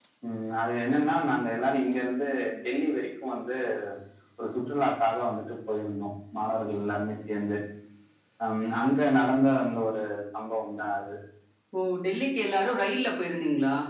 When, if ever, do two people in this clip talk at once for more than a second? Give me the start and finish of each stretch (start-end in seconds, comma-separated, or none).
none